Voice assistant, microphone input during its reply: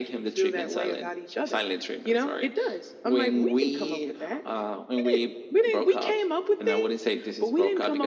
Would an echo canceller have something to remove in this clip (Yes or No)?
Yes